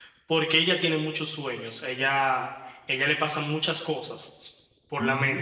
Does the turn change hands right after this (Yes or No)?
No